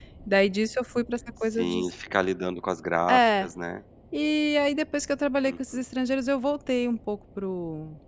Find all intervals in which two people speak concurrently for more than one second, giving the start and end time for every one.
none

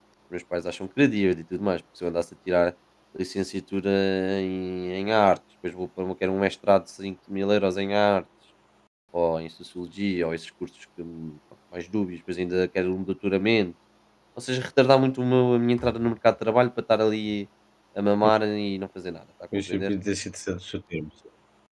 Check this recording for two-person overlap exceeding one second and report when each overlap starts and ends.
none

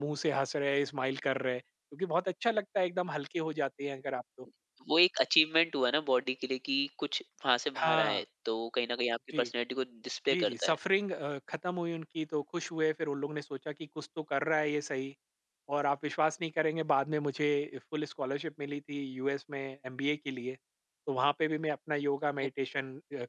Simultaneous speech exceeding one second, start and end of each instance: none

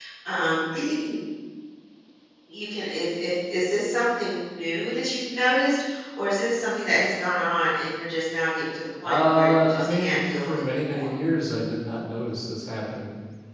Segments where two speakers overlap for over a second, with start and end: 9.0-11.1

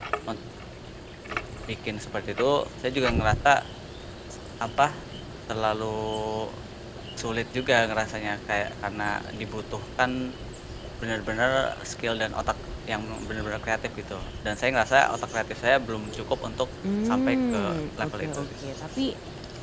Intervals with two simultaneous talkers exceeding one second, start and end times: 17.0-18.5

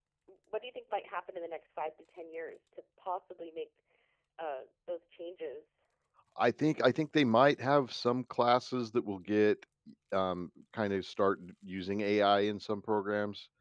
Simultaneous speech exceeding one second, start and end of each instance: none

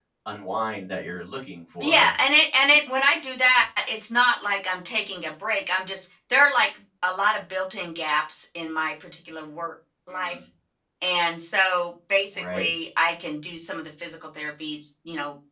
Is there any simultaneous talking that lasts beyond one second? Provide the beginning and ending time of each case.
none

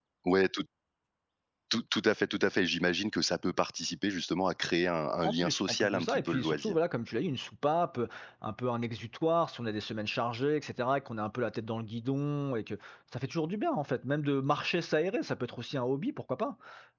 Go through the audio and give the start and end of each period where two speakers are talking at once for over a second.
5.2-6.8

